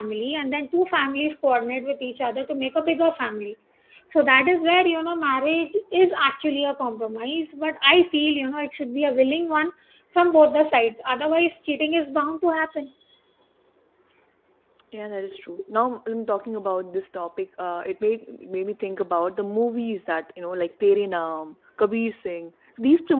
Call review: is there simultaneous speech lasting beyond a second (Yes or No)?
No